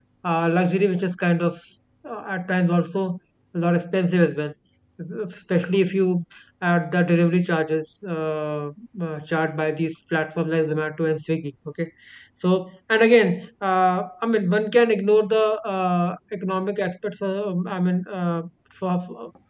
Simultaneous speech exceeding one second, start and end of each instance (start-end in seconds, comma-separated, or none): none